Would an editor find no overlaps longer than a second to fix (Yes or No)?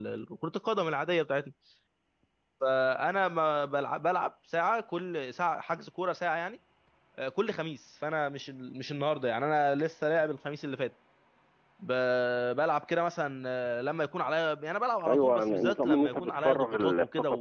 No